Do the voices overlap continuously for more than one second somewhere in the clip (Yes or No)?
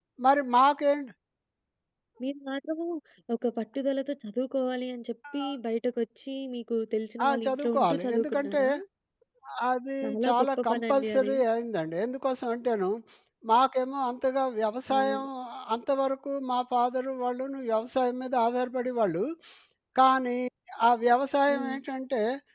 Yes